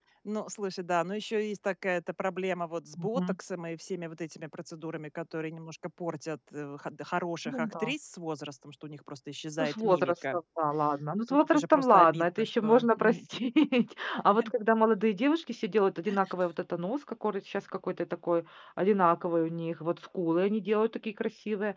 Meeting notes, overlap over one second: present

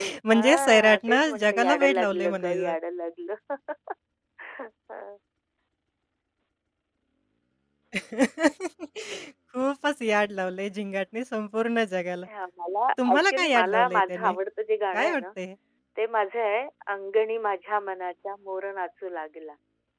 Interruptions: present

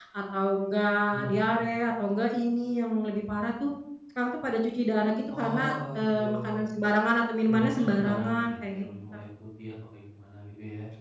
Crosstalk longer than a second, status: present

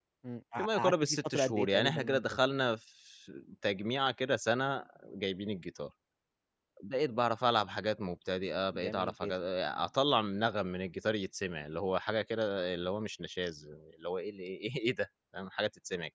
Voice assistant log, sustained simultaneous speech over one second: present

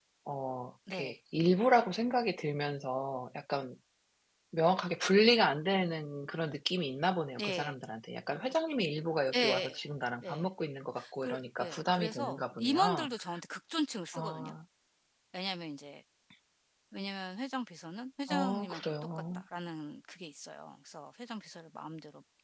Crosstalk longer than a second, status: present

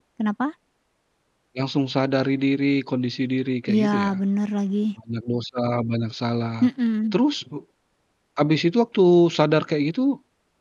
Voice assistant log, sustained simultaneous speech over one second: none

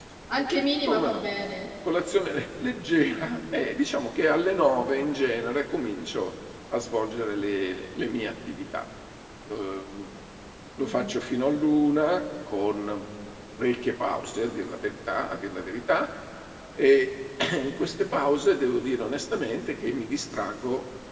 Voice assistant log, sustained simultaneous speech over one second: none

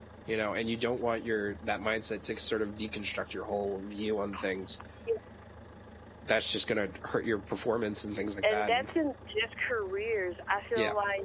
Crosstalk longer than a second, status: none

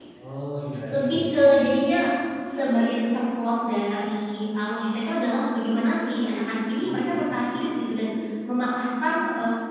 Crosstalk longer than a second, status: none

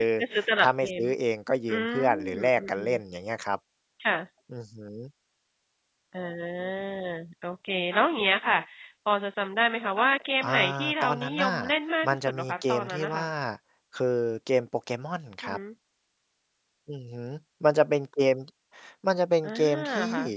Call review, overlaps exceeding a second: present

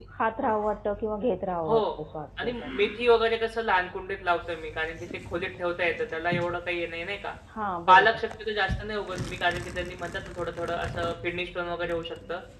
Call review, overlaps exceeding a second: none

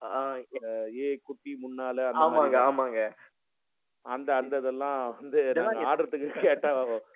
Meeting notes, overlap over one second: none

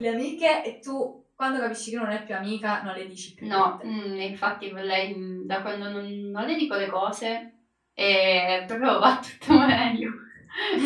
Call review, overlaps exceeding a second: none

